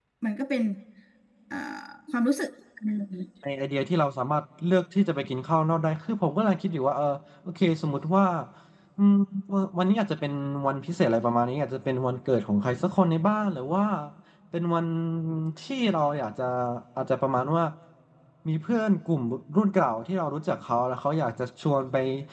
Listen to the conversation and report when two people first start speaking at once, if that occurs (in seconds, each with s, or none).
none